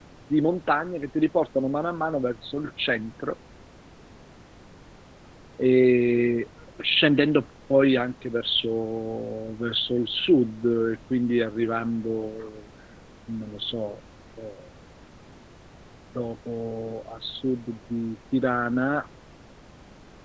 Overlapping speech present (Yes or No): No